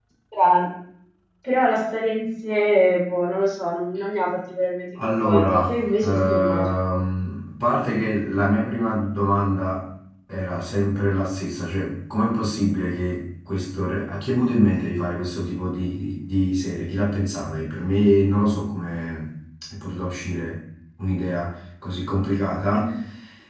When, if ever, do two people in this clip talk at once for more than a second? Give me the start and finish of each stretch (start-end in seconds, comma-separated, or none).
5.2-6.7